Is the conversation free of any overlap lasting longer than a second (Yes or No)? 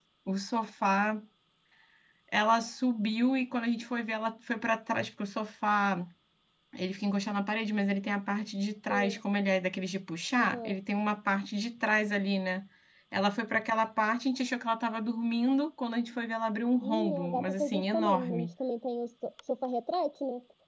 No